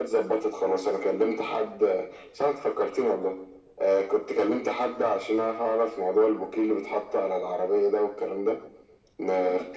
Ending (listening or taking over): listening